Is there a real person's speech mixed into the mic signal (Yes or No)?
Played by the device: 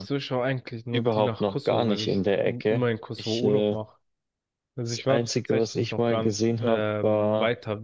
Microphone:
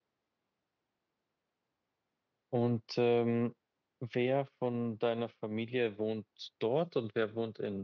Yes